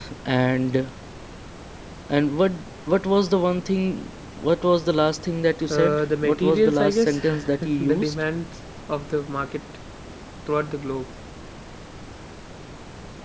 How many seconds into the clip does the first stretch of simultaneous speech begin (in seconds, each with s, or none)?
5.7 s